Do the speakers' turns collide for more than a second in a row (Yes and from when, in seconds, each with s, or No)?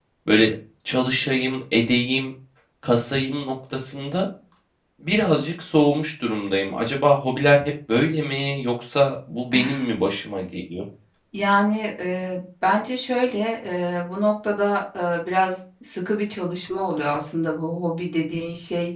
No